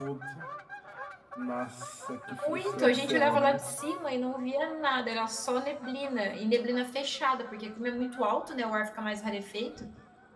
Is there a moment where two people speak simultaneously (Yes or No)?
Yes